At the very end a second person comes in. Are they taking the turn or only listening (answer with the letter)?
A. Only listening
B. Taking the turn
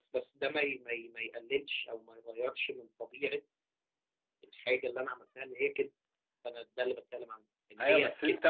B